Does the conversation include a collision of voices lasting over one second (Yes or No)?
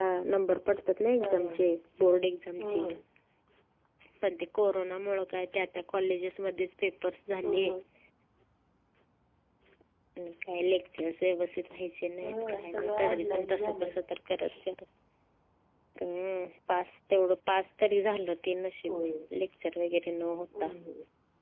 Yes